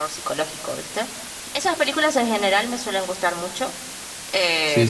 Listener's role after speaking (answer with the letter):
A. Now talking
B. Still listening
A